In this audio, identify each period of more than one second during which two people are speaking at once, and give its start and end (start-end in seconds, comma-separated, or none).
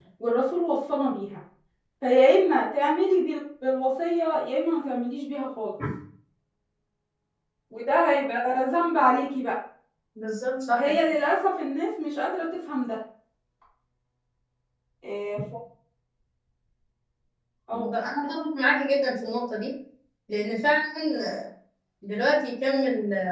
none